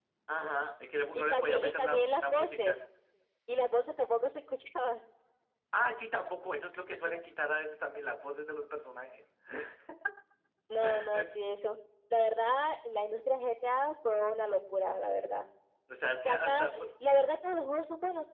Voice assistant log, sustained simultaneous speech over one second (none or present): present